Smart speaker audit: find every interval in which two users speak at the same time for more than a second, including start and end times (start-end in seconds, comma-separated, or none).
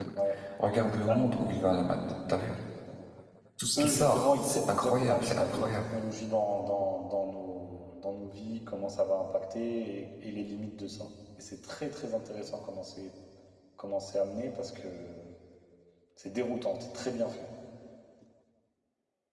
3.8-5.8